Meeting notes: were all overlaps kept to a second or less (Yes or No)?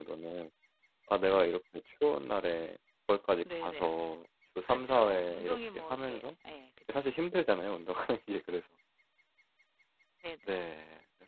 No